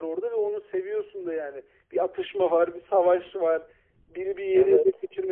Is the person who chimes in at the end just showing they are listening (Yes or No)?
Yes